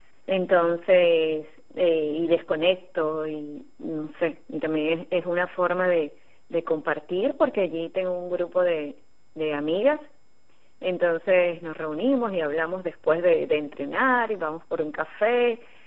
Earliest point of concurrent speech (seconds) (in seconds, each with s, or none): none